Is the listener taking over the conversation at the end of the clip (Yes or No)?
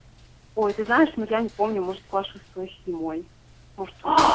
Yes